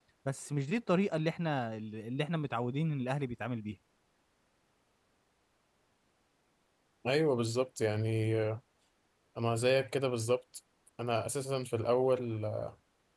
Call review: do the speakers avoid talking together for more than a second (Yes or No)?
Yes